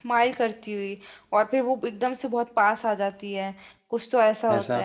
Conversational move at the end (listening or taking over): listening